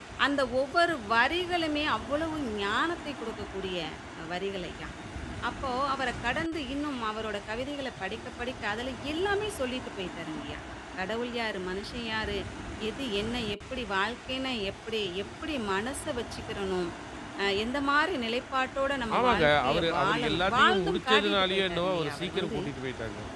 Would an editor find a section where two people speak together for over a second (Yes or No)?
Yes